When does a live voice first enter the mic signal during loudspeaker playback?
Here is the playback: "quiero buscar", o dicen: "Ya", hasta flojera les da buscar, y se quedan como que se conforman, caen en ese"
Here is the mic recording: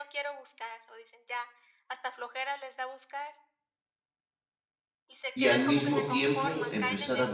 5.3 s

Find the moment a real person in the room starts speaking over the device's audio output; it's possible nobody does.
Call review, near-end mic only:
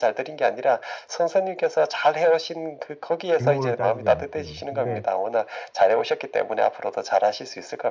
3.4 s

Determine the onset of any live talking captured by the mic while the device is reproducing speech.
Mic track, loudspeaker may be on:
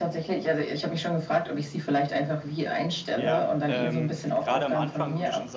3.2 s

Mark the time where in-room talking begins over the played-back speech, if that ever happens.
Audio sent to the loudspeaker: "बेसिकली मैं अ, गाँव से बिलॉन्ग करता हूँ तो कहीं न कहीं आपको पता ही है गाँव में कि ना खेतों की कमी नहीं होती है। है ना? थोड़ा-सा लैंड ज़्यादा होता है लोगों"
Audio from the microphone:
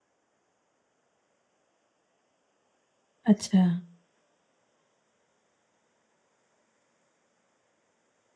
3.3 s

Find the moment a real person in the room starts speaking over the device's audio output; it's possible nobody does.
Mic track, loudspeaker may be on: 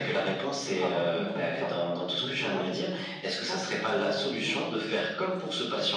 none

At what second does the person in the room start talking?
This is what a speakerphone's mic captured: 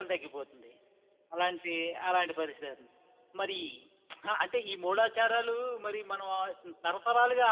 none

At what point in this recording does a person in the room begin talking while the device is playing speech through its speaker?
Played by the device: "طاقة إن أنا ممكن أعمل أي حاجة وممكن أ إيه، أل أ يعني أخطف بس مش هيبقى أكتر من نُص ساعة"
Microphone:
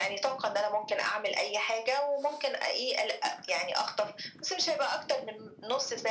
none

